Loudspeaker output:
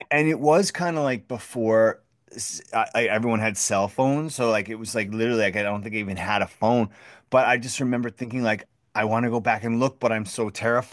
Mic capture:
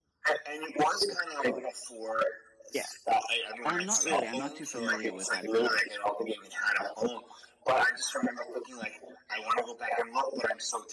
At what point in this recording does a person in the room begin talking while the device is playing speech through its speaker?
2.7 s

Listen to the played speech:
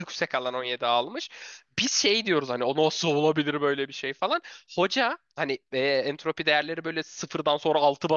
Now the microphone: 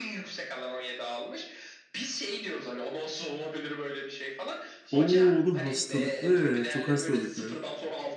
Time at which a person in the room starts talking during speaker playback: 4.9 s

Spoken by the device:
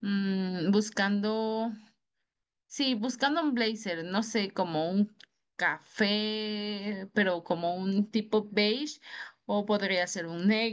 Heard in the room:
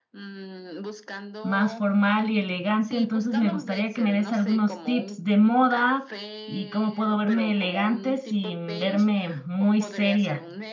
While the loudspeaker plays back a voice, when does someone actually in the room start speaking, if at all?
1.4 s

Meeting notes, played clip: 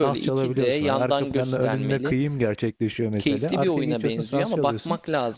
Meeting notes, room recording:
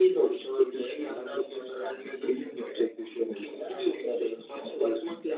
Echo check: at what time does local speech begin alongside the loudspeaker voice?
none

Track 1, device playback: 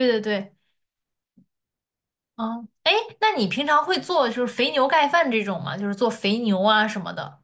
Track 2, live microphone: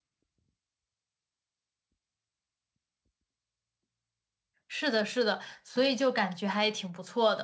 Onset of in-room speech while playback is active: 4.7 s

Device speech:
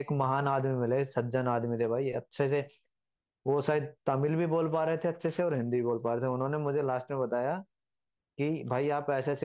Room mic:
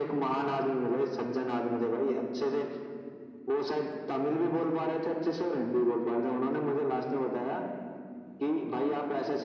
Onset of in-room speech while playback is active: none

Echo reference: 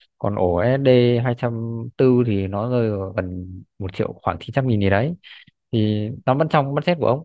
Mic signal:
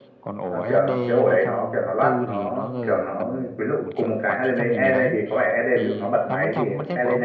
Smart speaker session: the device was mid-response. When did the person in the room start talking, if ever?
0.5 s

